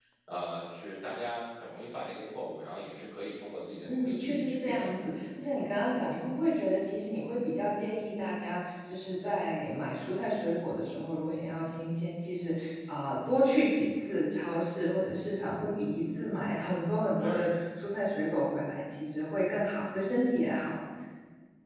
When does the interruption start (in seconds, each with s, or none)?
3.8 s